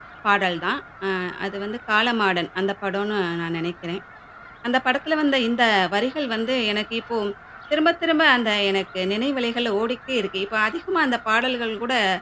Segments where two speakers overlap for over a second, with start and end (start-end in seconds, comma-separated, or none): none